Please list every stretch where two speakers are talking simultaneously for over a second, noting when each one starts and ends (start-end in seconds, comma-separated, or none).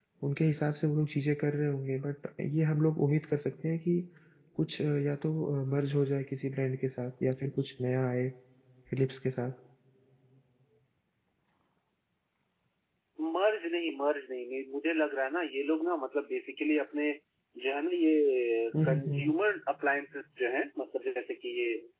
none